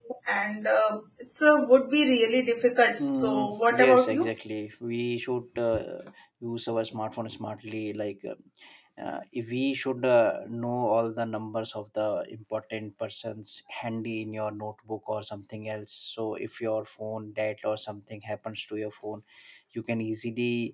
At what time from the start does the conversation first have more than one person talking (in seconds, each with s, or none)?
3.0 s